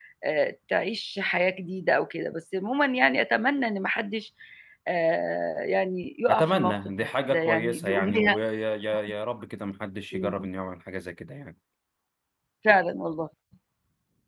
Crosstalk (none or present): present